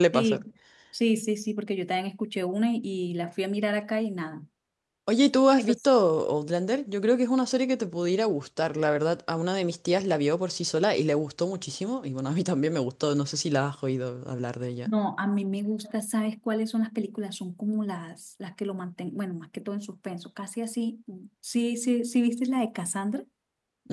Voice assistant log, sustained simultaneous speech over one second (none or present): none